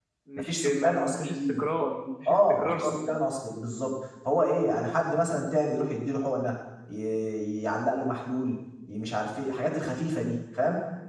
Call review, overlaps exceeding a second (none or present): present